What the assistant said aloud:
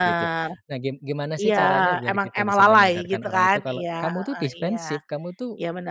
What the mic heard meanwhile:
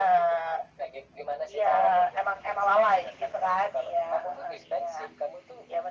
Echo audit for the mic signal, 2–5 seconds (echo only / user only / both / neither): echo only